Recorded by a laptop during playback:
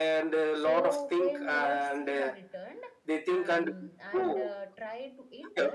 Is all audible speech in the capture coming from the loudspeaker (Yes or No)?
No